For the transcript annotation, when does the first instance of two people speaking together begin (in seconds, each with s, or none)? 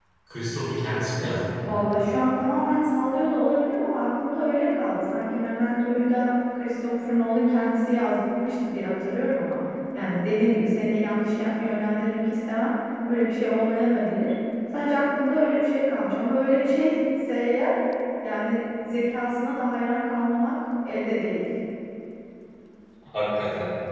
none